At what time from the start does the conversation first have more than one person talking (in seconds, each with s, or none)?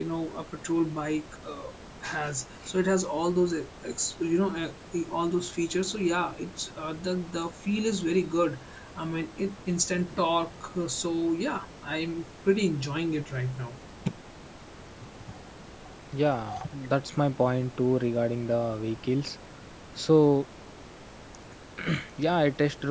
none